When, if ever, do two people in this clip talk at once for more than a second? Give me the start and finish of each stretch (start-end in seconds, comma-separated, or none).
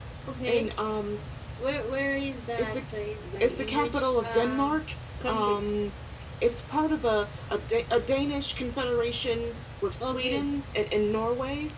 3.4-4.8